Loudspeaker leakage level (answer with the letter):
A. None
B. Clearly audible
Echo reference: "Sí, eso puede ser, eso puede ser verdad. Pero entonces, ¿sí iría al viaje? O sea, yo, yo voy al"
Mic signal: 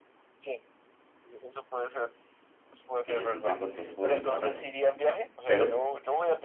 B